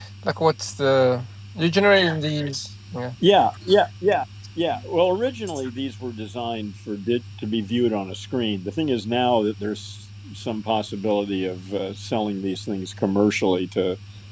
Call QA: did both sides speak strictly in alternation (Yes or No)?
Yes